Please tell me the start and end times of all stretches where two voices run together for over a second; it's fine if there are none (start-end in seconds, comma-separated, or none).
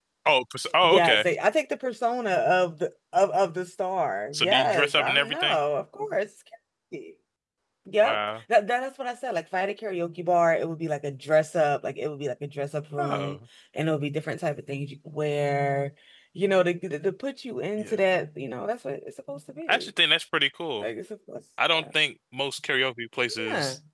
4.3-5.6